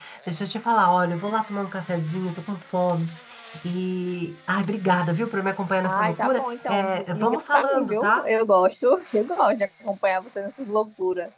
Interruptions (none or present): present